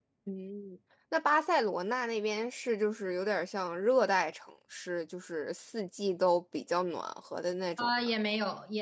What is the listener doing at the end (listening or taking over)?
taking over